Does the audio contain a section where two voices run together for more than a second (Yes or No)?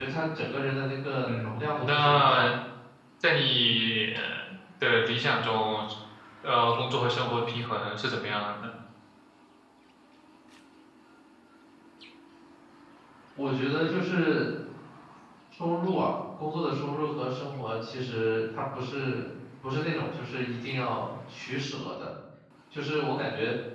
Yes